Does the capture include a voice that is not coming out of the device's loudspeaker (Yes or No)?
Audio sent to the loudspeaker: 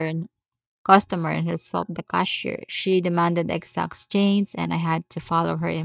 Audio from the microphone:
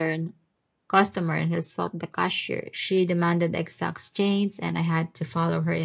No